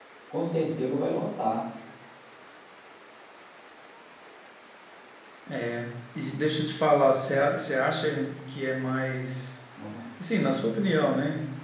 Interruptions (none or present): none